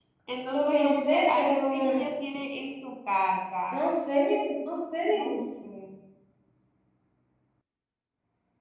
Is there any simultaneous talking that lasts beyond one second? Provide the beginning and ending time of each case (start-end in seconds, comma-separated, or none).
0.5-2.0